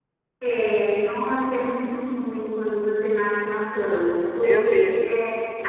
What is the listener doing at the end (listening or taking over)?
listening